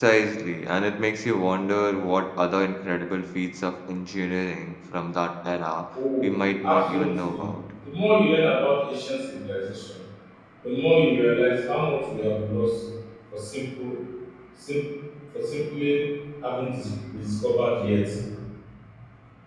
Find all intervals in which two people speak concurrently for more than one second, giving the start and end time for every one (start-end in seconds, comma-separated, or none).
6.2-7.4